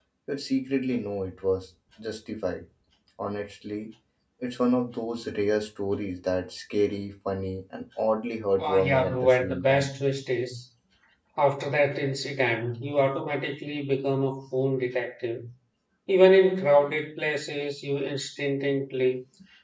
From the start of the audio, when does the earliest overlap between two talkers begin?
8.6 s

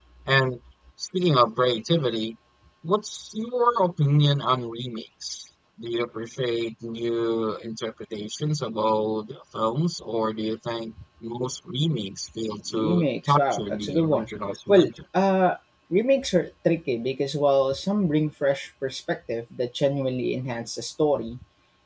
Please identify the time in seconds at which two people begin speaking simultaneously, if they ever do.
12.7 s

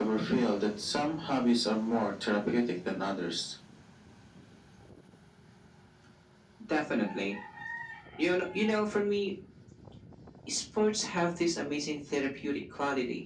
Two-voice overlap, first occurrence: none

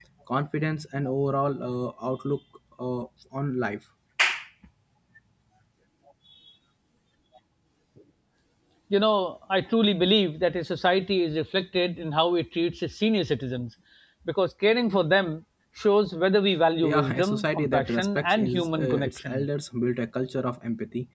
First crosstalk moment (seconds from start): 16.8 s

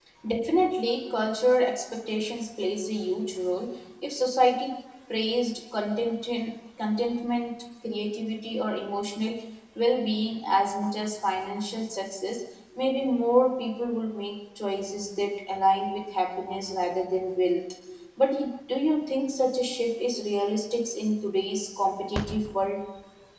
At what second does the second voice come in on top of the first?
none

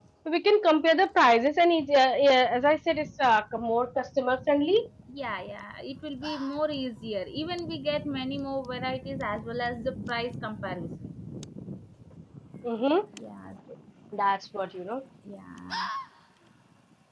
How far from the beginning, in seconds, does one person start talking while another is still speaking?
none

